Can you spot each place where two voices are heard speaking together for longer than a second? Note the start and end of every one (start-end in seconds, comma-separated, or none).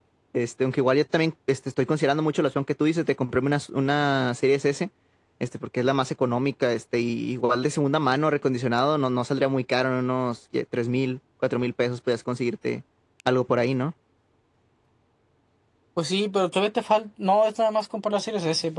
none